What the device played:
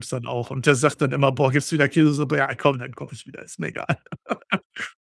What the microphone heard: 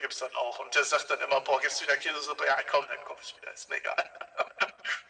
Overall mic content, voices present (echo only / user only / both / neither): echo only